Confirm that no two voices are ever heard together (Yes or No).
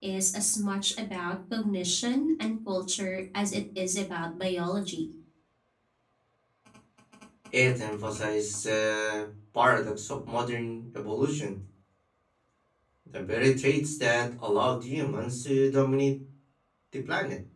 Yes